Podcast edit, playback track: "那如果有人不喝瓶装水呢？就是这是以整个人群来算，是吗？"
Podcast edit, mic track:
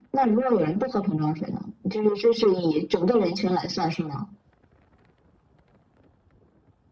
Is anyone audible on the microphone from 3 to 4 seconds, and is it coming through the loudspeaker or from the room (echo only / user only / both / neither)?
echo only